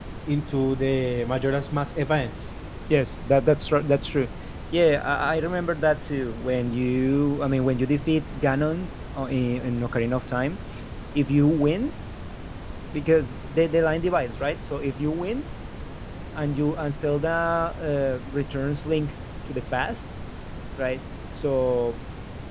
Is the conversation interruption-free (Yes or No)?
Yes